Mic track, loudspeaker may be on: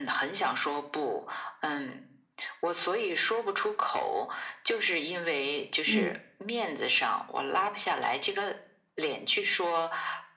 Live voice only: 嗯。

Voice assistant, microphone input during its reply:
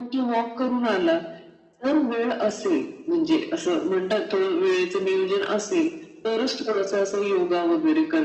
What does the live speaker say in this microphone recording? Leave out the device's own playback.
none

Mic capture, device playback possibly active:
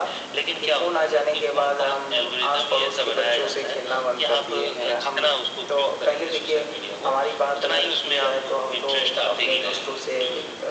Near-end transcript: none

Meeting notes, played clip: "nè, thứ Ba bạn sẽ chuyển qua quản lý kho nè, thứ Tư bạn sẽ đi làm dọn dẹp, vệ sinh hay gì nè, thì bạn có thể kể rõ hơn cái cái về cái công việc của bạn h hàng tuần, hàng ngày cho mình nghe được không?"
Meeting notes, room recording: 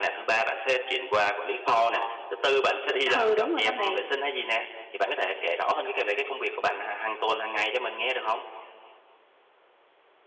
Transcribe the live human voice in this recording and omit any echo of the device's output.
Ừ, đúng rồi đó bạn.

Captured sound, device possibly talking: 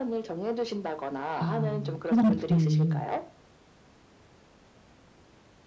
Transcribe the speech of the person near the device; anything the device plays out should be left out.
아 화장품이

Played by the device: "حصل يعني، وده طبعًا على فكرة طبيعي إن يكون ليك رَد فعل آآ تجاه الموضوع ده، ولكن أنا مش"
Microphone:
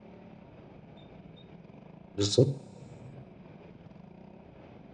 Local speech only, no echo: بالضبط.

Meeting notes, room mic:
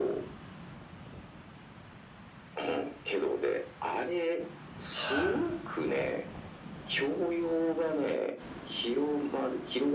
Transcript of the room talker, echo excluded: はい。

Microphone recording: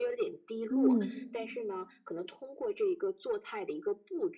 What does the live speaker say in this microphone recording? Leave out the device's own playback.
嗯

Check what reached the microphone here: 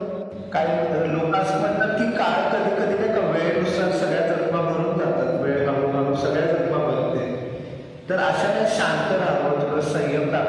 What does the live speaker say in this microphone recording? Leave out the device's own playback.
none

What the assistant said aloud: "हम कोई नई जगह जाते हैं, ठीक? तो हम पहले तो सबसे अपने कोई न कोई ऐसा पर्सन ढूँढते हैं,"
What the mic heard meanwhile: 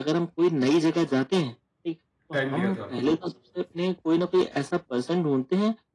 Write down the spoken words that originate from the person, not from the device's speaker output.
टाइम दिया था आपको?

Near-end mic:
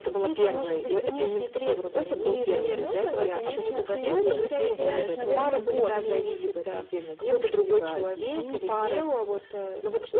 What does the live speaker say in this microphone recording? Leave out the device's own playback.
И таким образом, конечно, ты в итоге потеряешь, наверное, больше.

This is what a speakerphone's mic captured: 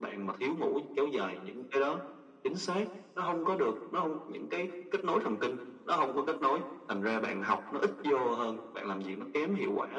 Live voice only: none

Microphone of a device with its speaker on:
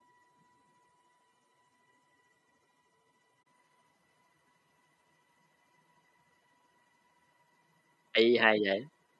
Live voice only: hay hay vậy,

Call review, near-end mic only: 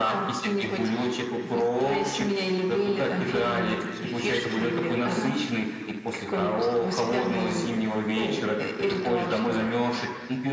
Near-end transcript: Ага.

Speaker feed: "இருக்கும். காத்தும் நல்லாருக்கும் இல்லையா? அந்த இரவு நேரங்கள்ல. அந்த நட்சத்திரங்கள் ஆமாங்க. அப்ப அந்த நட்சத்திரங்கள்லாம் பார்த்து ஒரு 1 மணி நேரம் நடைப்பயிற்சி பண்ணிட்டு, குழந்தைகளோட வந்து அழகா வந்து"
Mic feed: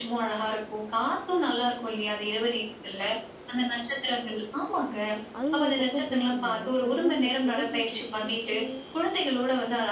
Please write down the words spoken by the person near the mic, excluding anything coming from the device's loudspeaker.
அது ஒரு பக்கம் போயிட்டு இருந்தாலும், சில நேரங்கள்ல தொலைபேசியில பேசியே

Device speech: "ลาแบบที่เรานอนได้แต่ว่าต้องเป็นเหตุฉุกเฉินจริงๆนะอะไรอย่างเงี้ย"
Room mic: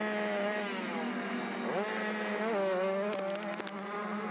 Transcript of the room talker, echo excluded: none

